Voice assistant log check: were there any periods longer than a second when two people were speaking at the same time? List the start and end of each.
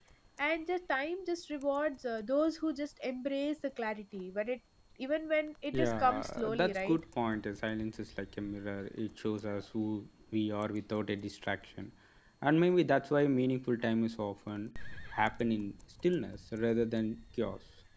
5.7-7.0

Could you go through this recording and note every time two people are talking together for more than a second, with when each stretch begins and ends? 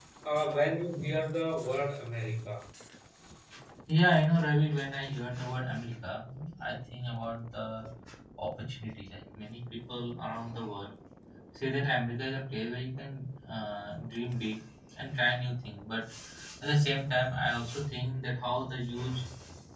none

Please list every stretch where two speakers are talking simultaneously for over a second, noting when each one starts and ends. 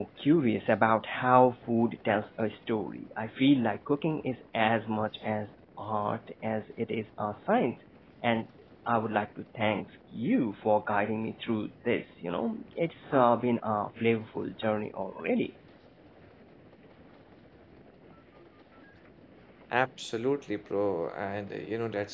none

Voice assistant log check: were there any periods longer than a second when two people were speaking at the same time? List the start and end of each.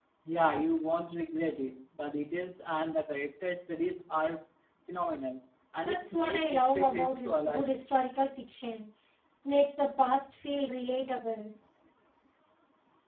5.8-7.7

